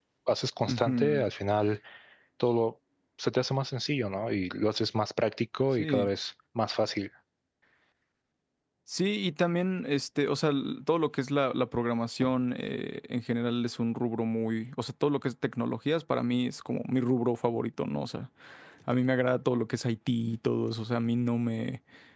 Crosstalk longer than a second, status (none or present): none